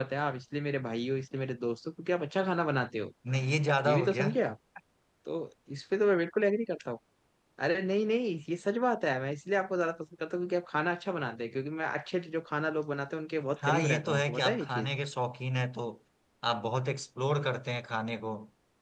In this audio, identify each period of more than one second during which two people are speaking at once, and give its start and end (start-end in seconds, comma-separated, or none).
13.6-14.9